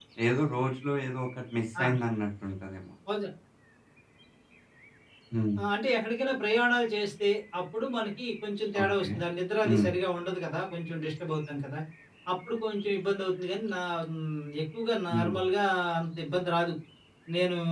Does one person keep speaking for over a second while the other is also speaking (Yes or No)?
No